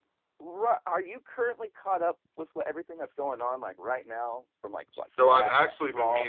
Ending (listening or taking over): taking over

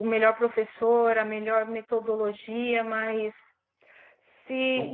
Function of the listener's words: listening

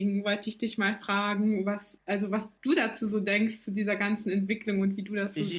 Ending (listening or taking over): taking over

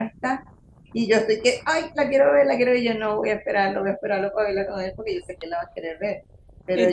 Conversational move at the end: listening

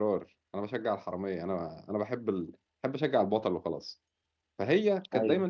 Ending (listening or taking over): listening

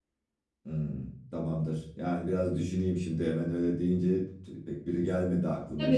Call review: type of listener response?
taking over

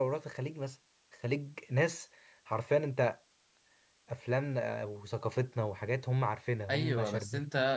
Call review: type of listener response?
taking over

